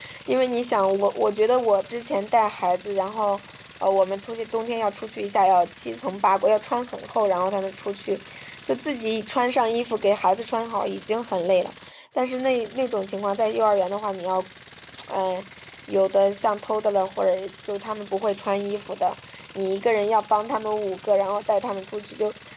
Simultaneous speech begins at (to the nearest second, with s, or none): none